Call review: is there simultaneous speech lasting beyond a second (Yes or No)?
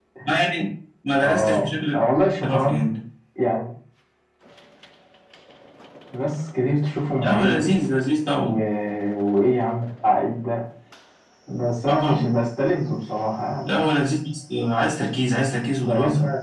Yes